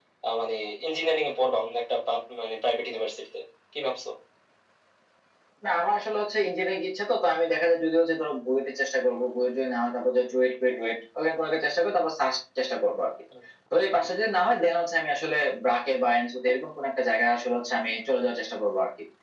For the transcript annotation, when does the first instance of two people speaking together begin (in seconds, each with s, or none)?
none